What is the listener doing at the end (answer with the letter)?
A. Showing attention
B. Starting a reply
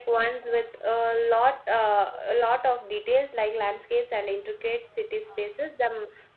A